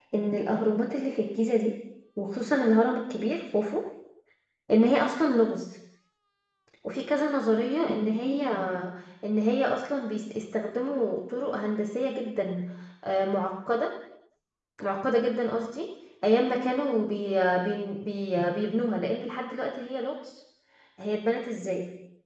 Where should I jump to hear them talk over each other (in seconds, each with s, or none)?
none